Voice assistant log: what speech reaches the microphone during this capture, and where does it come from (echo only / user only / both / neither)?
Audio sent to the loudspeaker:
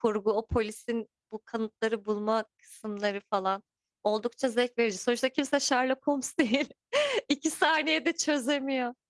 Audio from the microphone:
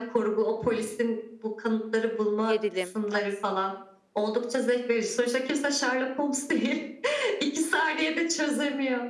both